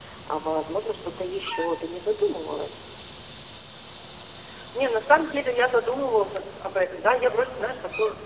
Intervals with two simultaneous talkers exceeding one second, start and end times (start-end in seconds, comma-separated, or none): none